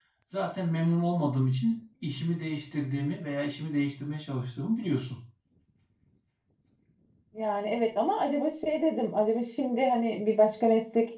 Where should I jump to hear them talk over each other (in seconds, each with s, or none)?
none